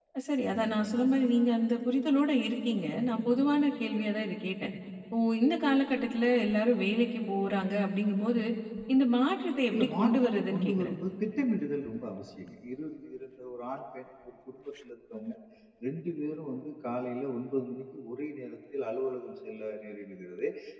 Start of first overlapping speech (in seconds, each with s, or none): 9.7 s